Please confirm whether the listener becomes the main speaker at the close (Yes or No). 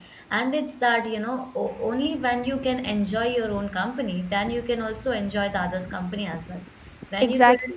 No